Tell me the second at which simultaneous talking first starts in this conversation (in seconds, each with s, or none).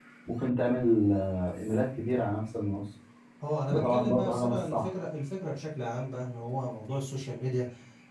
3.7 s